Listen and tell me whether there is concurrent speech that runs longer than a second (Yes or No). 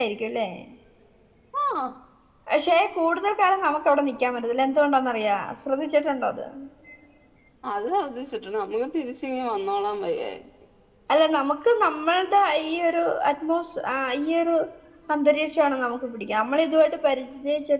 No